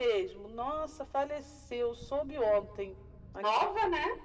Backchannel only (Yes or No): Yes